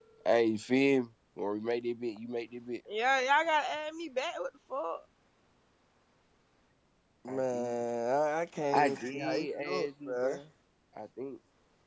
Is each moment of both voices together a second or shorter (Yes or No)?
No